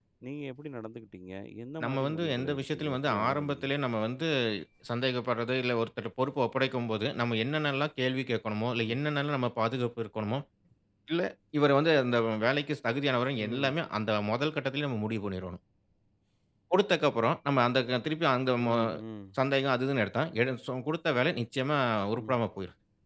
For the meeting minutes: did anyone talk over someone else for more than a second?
Yes, from 1.8 s

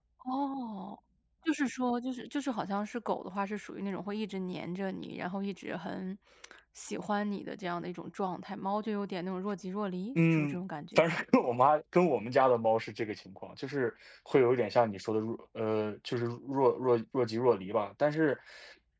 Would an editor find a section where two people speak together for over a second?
No

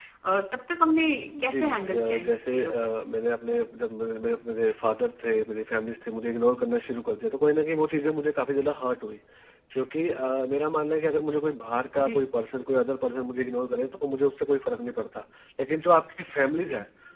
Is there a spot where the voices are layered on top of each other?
Yes, from 1.4 s

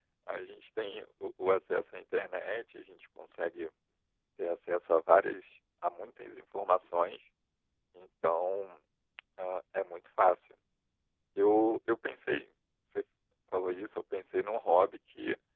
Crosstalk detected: No

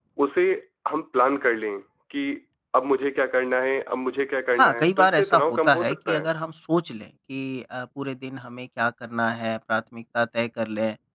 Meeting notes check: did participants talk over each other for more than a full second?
Yes, from 4.6 s

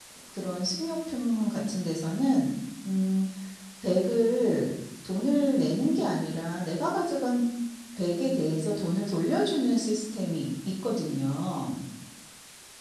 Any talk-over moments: No

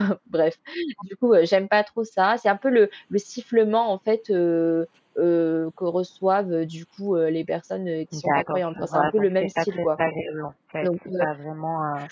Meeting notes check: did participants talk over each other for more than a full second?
Yes, from 8.1 s

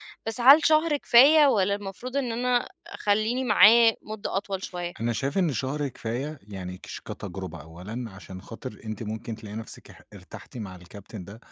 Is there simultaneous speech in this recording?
No

